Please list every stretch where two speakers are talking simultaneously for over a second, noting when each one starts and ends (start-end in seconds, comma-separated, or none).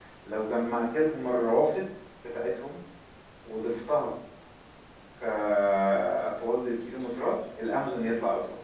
none